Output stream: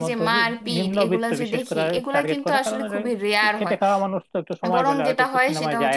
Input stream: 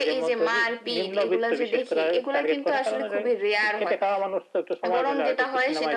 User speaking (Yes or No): No